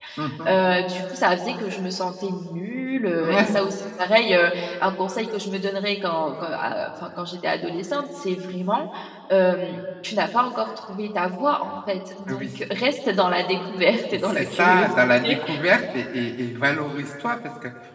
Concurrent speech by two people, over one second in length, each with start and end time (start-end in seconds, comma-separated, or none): 14.2-15.4